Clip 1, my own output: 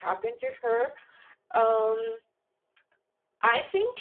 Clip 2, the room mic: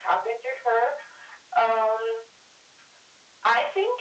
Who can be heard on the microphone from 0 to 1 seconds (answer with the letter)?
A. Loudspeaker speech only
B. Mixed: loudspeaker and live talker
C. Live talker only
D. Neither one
A